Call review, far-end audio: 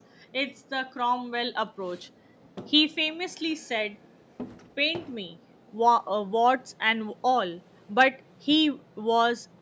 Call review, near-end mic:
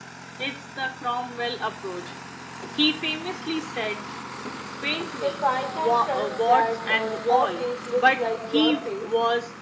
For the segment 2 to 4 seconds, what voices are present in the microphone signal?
echo only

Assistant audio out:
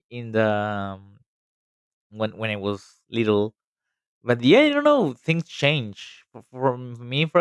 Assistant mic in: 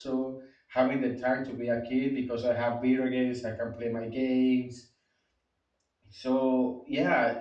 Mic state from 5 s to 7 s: user only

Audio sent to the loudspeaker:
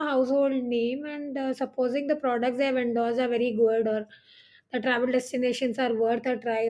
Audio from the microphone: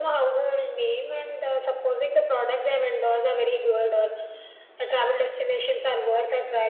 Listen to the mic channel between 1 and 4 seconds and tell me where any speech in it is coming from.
echo only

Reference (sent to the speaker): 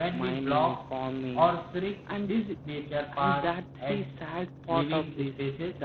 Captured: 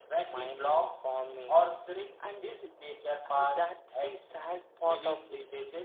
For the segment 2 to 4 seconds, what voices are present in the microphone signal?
echo only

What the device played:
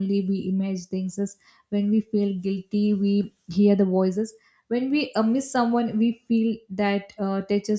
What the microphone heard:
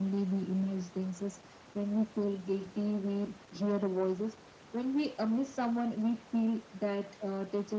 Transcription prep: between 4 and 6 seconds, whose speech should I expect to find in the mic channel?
echo only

